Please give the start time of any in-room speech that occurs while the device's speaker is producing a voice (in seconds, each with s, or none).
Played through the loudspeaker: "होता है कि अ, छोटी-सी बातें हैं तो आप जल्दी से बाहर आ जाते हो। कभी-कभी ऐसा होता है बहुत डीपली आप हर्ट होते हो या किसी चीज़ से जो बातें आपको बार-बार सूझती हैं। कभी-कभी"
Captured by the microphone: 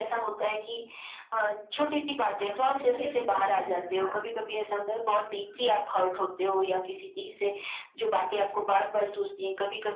2.4 s